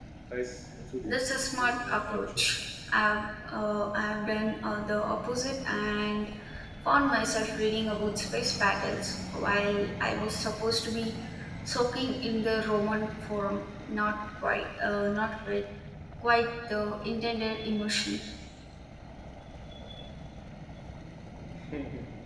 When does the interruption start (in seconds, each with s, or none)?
1.0 s